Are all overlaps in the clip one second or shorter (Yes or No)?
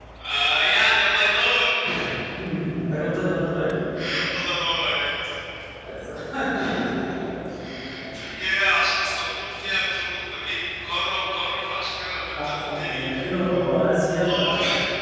No